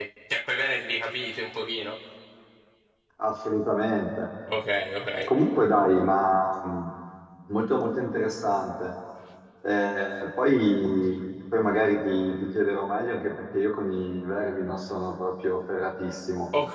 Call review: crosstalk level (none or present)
none